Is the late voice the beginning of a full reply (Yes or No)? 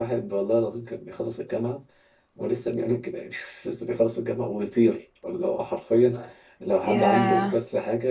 No